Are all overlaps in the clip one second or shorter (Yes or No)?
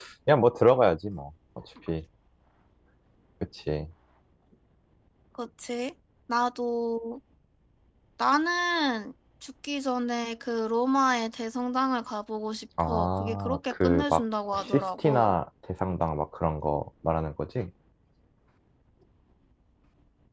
No